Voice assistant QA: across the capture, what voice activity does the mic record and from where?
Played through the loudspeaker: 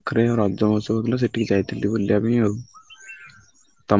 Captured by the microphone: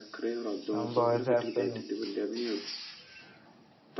both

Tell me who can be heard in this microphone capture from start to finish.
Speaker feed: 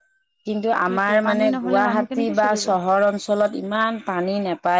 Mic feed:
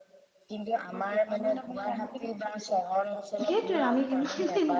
both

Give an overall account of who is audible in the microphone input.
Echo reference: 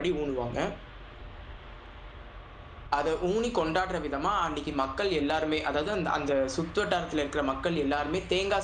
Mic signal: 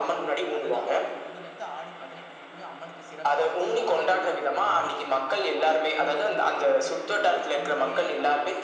both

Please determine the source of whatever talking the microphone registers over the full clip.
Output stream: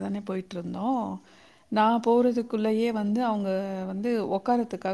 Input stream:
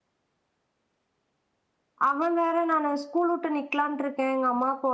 user only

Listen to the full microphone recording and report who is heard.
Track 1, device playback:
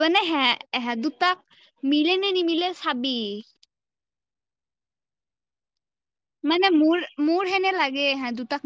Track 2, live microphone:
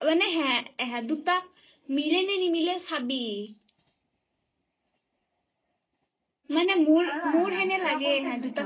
both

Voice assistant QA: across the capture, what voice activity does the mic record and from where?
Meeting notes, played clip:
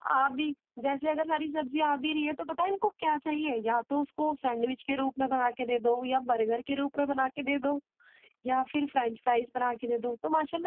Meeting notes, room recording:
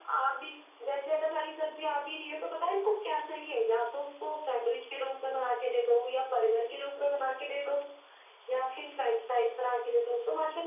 echo only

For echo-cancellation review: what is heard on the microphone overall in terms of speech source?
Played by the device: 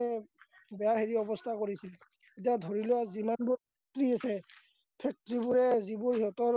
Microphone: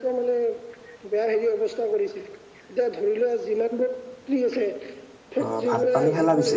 both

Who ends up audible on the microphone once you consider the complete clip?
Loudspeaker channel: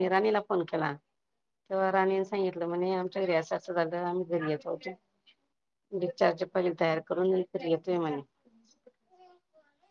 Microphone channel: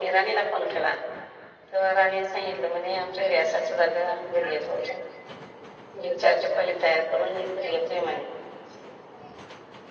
echo only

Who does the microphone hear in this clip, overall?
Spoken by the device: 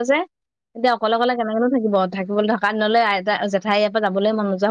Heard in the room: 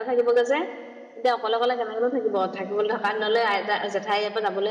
echo only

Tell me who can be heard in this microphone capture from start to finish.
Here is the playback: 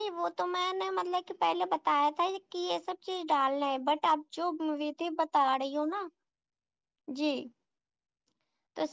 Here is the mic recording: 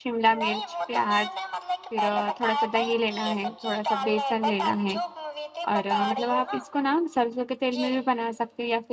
both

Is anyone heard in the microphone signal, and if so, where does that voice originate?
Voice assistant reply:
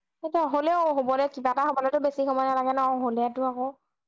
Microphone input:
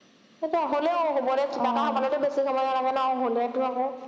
both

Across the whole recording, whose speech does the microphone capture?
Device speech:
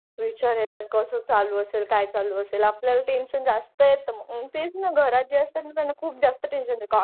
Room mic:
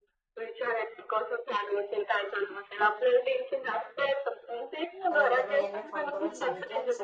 both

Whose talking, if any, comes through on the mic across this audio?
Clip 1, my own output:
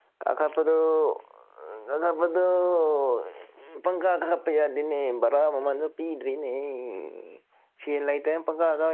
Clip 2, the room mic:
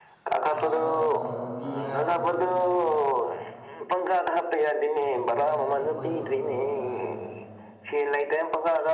both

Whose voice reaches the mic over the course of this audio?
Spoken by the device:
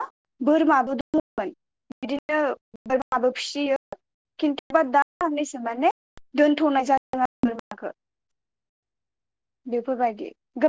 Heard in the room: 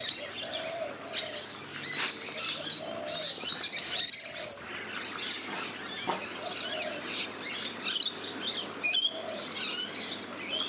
neither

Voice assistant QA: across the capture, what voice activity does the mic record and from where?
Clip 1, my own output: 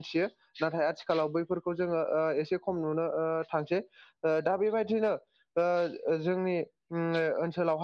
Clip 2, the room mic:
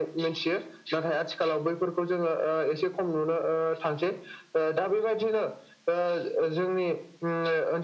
echo only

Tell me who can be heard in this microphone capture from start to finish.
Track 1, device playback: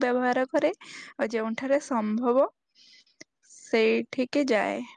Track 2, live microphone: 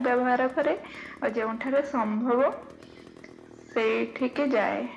echo only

